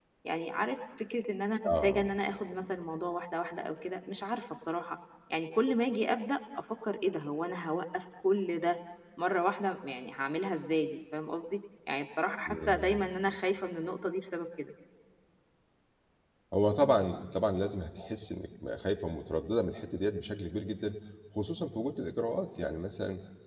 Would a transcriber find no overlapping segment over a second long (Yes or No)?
Yes